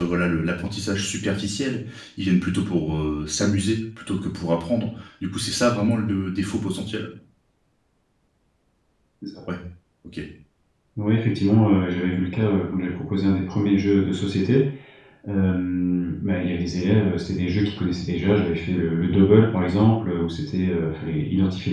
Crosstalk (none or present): none